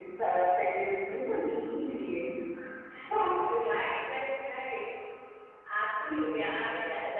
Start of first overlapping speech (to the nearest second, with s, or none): none